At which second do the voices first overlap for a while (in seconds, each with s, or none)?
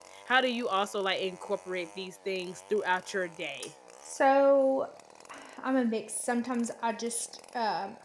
none